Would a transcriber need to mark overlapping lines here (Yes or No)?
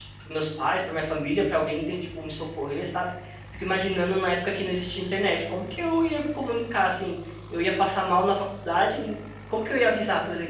No